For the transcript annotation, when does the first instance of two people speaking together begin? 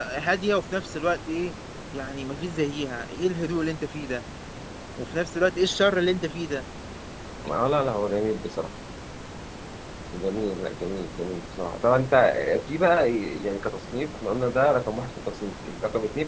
none

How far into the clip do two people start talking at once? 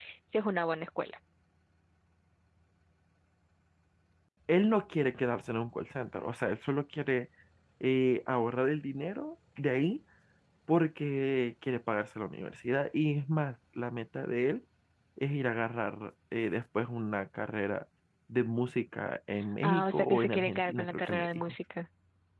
20 s

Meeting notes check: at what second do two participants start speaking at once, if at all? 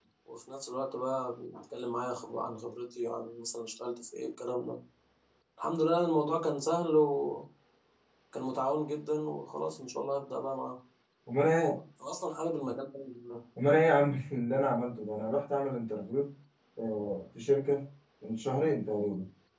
none

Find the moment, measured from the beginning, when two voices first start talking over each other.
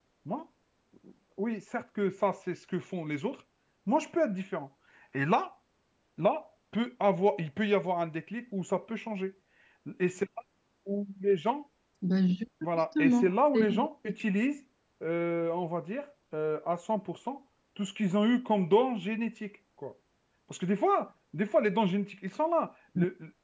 13 s

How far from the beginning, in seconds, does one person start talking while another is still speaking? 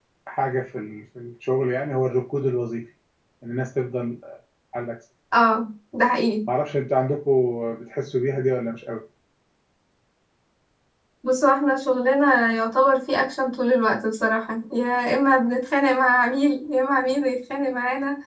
none

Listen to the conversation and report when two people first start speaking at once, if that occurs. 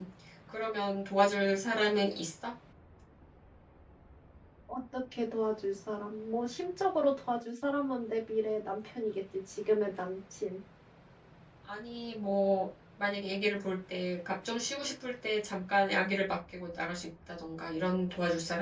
none

